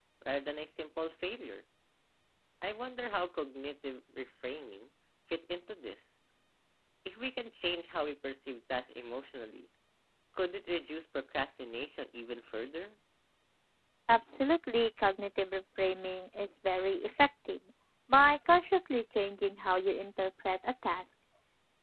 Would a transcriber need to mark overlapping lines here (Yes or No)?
No